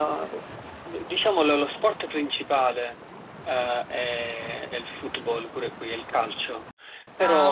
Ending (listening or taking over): listening